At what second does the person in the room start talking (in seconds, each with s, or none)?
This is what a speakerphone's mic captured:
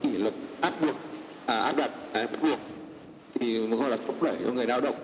none